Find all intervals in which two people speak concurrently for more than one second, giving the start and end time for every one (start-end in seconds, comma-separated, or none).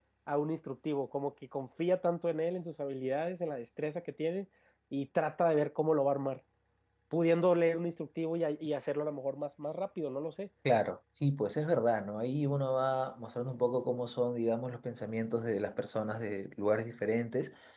none